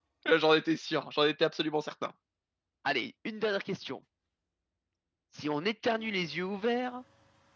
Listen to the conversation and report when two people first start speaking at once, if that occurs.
none

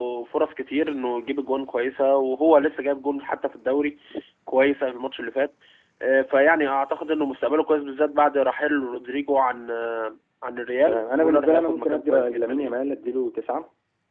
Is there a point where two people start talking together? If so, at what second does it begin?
10.9 s

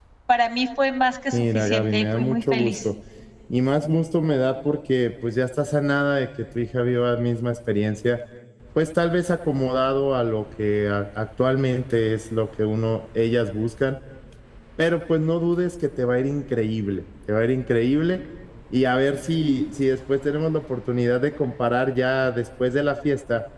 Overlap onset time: 1.3 s

